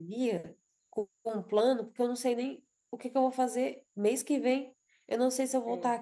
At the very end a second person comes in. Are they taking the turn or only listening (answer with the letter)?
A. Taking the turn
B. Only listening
B